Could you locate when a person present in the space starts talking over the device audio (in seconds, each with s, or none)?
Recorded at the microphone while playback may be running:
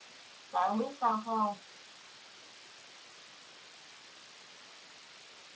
0.5 s